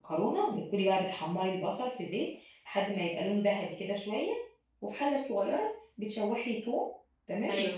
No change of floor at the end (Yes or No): Yes